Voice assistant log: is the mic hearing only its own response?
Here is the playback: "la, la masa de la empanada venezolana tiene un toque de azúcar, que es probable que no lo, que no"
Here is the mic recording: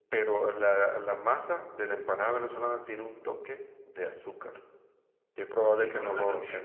No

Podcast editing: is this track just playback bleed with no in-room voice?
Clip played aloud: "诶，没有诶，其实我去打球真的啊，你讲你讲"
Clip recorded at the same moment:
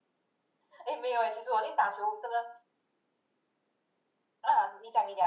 Yes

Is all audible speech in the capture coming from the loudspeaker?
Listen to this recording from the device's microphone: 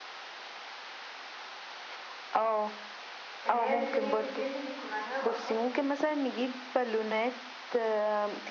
No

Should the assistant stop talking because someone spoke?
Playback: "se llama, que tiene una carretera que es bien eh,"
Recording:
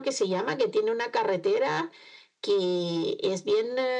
No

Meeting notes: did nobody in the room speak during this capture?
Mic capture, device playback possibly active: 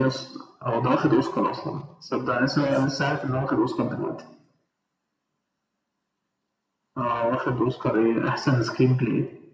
No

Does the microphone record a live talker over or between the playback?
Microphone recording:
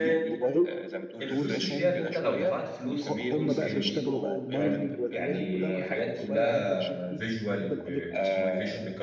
Yes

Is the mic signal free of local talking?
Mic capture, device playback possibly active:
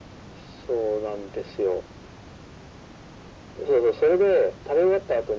Yes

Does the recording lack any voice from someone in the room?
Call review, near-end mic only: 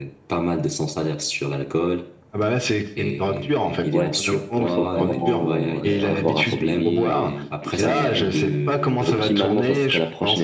No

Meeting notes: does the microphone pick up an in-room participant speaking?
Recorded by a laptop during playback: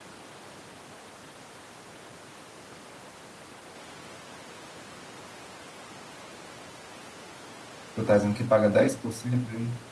Yes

